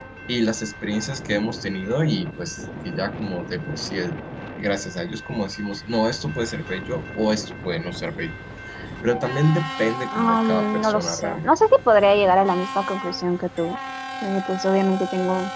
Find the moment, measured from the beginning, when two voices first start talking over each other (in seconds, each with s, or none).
10.1 s